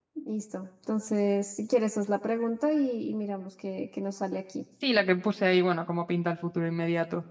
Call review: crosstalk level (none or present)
none